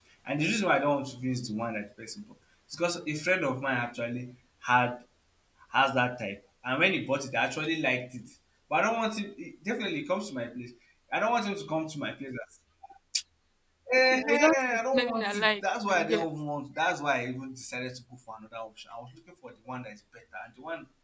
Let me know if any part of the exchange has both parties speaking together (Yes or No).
Yes